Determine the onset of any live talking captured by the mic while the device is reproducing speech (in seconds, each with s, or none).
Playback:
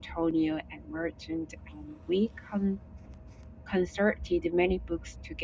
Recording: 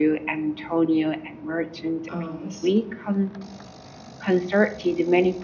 2.1 s